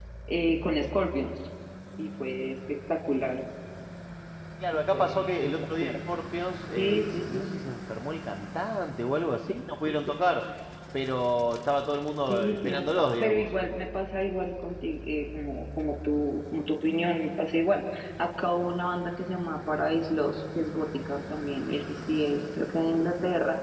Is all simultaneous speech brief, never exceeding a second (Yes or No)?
No